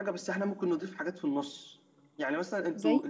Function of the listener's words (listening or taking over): listening